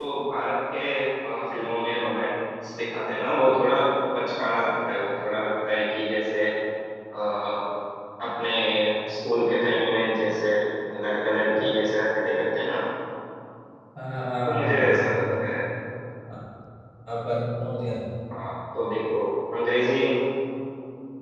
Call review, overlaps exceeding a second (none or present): none